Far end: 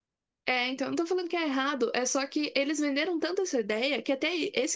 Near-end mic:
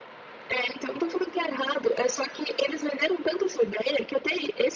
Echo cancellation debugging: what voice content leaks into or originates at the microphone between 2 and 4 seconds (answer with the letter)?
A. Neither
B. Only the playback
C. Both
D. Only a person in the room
B